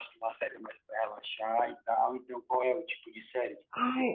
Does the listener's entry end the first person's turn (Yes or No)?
Yes